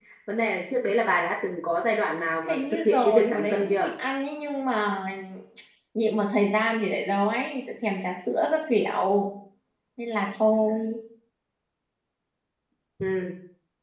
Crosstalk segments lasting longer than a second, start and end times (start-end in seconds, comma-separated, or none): 2.5-3.9